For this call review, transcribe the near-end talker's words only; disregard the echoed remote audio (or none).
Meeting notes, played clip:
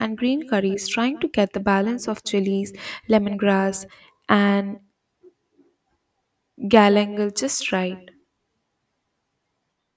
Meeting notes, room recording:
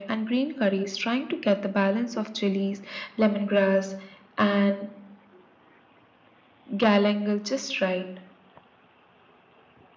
none